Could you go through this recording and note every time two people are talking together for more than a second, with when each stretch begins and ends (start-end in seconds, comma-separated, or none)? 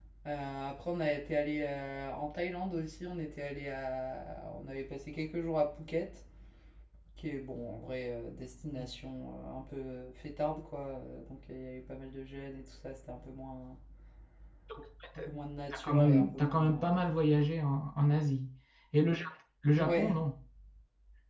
15.7-16.9